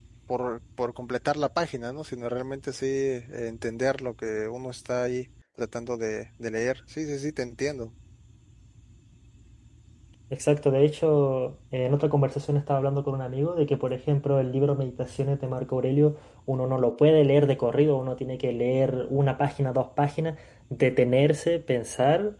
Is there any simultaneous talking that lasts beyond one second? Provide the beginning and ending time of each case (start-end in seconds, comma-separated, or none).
none